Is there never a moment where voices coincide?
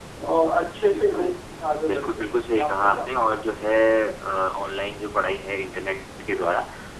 No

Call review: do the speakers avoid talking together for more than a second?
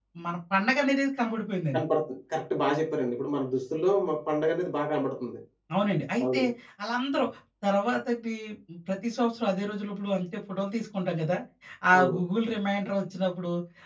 Yes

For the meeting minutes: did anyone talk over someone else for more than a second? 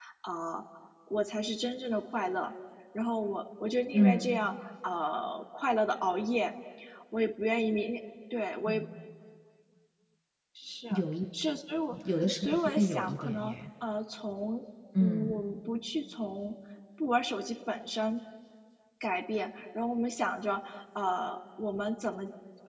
Yes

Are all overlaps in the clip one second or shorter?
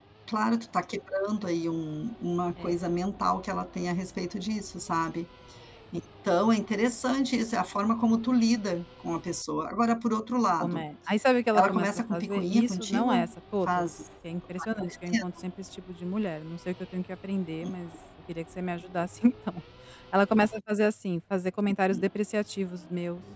No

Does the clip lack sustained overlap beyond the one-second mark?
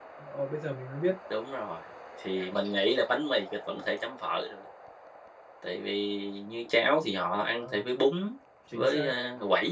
Yes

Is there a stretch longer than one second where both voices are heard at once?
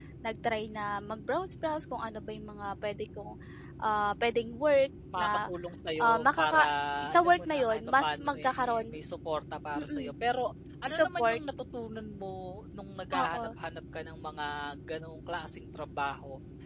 Yes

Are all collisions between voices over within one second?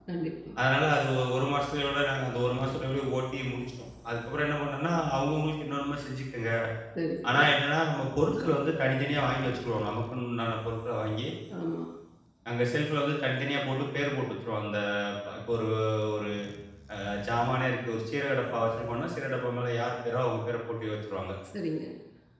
Yes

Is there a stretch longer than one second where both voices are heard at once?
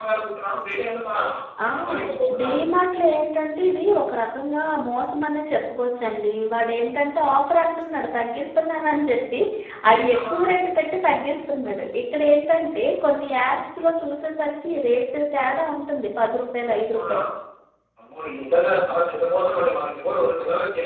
No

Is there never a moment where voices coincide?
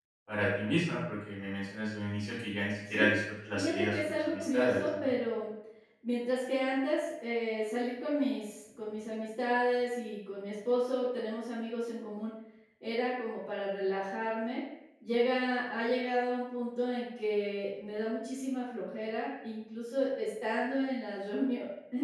No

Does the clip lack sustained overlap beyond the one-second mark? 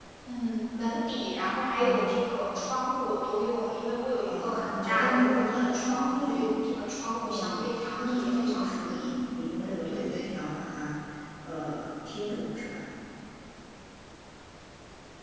No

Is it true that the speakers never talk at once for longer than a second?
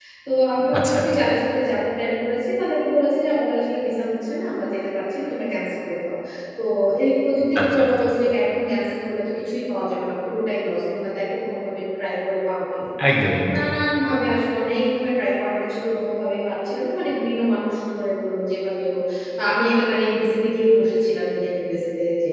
Yes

